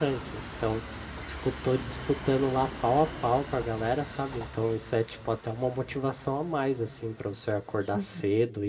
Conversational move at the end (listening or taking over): listening